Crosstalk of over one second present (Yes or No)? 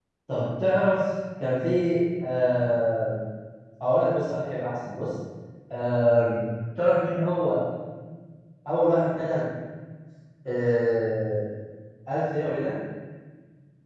No